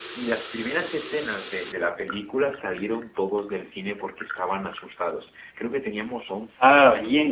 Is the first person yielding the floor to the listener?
No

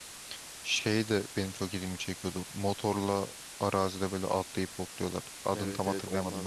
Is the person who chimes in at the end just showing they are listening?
No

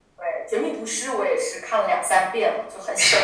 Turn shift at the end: Yes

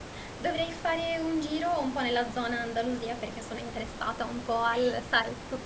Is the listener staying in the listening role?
Yes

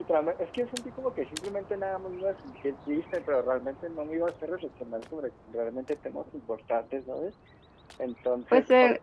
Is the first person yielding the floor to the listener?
Yes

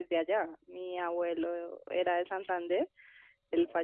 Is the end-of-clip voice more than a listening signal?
No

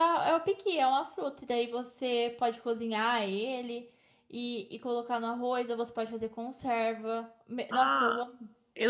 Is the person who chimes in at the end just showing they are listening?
No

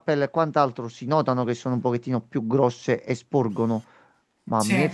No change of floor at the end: Yes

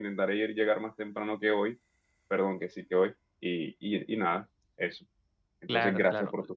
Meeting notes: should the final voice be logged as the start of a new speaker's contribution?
Yes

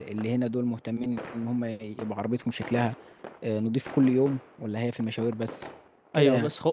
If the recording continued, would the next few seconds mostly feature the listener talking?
Yes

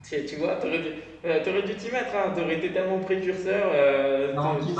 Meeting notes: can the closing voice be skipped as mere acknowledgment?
No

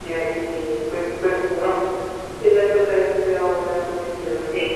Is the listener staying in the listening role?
Yes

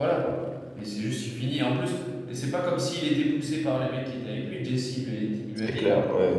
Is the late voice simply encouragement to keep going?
No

